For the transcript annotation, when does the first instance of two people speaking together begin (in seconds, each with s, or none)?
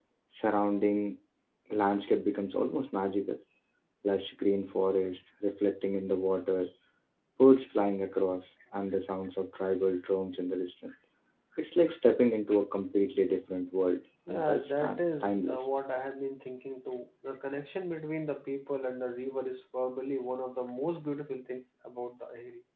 14.3 s